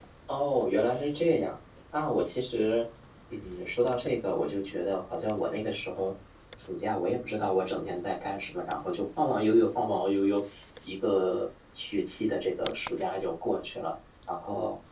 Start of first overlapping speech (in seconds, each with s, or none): none